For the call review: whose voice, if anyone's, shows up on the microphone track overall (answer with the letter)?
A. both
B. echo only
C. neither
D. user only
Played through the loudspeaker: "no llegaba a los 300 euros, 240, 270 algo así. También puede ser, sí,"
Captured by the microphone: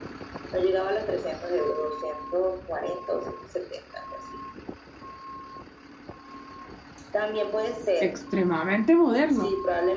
A